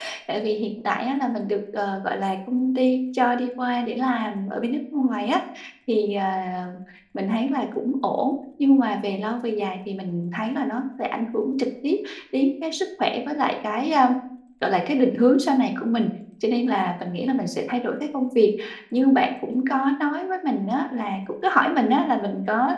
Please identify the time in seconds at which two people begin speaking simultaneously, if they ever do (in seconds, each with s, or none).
none